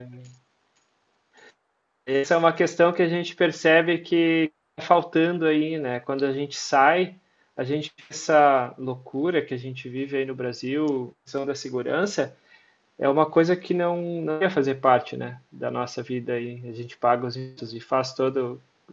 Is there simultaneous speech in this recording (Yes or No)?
No